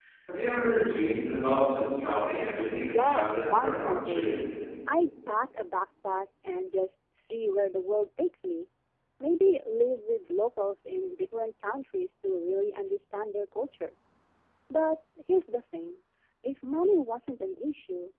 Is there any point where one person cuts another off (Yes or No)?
Yes